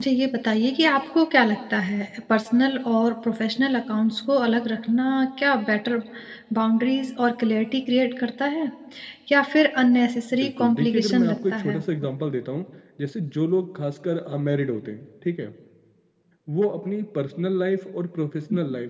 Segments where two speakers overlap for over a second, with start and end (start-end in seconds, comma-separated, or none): 10.4-11.8